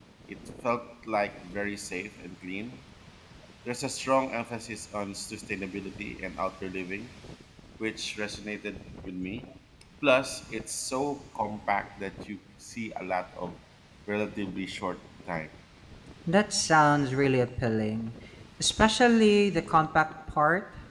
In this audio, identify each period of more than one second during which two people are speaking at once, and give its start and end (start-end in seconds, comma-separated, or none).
none